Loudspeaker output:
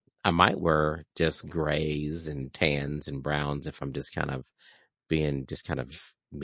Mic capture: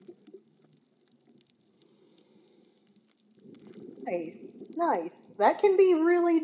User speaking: Yes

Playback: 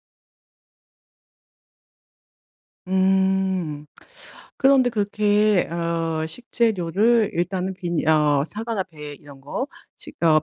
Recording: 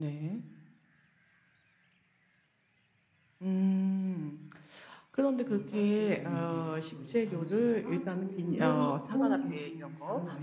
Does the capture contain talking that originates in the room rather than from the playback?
Yes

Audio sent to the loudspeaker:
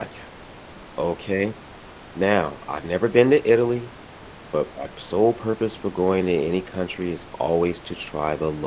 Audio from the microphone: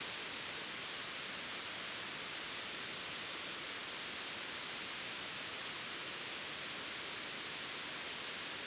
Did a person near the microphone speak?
No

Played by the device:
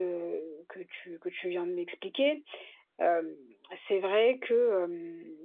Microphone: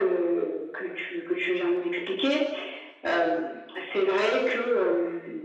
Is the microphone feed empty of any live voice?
Yes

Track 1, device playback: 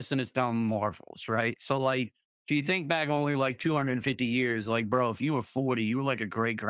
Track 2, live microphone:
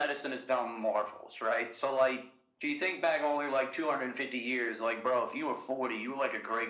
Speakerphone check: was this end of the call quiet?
Yes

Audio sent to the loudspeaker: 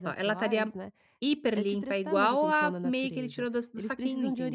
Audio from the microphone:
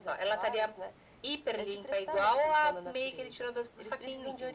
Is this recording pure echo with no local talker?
Yes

